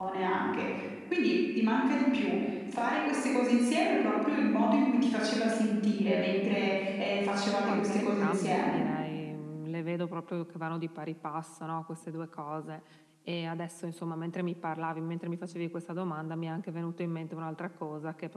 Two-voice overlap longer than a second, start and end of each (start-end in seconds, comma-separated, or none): 7.6-8.8